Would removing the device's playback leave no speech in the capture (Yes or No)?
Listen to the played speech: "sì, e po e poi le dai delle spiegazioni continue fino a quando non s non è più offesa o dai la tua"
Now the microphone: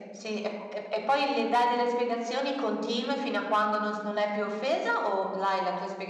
Yes